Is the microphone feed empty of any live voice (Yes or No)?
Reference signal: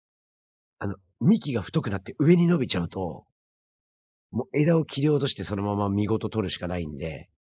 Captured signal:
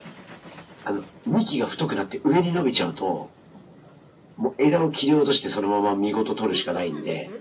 No